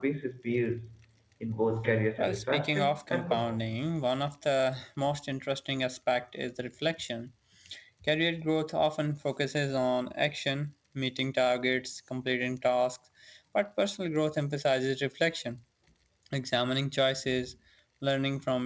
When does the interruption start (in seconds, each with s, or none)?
2.2 s